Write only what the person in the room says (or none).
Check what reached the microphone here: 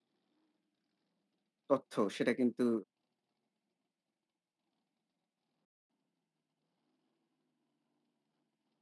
তথ্য সেটা কিন্তু,